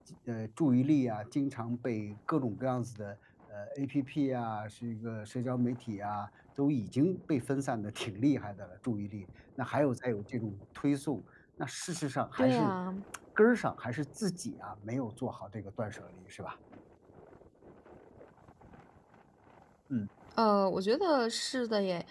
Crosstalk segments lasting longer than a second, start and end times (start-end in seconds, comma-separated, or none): none